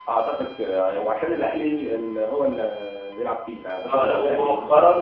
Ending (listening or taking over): taking over